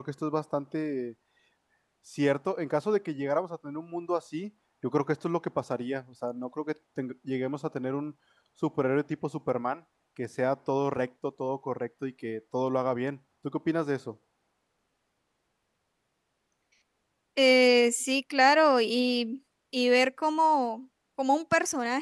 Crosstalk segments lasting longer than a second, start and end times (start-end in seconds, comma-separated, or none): none